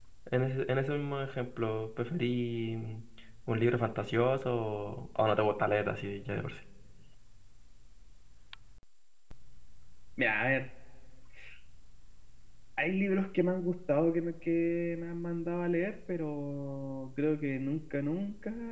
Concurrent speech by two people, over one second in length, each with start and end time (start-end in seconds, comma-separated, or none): none